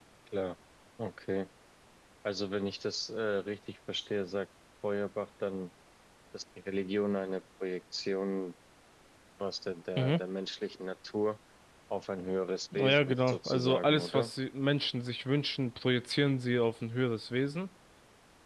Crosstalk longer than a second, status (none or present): present